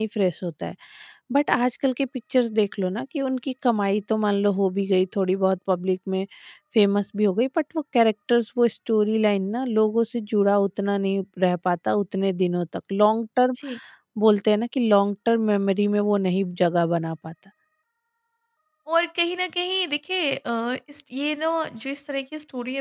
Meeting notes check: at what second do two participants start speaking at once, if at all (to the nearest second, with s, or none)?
none